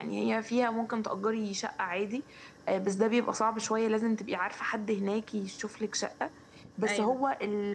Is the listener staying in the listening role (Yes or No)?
Yes